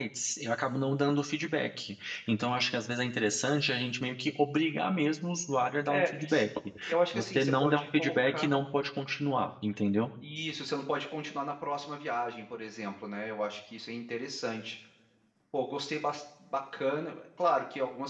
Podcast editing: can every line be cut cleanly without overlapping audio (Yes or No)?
No